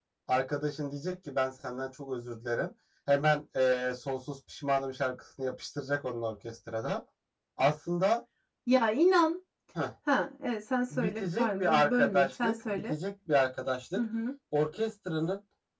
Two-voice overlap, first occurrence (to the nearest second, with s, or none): 11 s